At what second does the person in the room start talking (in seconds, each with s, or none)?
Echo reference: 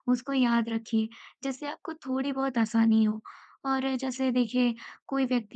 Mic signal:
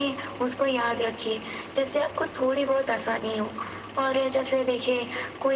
none